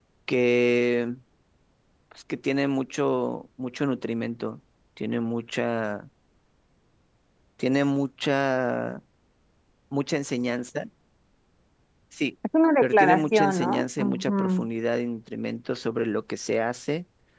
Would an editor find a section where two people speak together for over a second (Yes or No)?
Yes